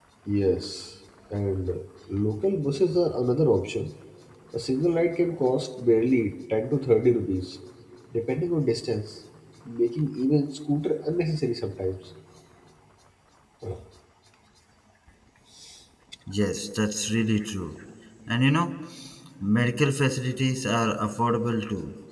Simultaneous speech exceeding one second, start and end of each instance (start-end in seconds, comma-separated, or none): none